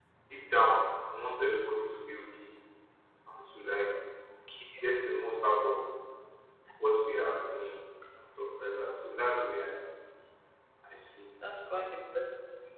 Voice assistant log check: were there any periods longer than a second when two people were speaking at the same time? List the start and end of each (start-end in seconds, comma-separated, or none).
none